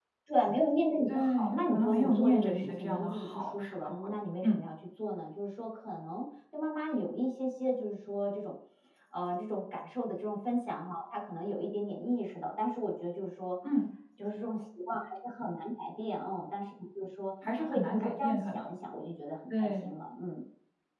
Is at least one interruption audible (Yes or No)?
Yes